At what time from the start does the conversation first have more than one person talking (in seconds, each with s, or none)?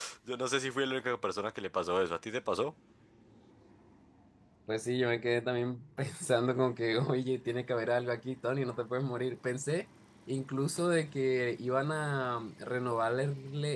none